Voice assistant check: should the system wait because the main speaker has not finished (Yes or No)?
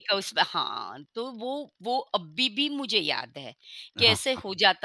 Yes